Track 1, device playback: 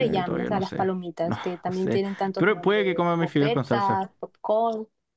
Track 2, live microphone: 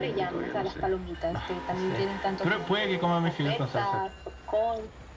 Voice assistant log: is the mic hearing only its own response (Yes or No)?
Yes